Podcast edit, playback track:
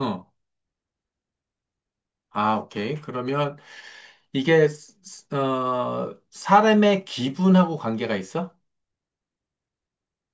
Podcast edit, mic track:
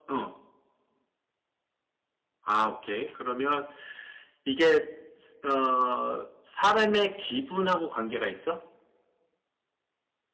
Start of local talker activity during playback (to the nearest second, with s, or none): none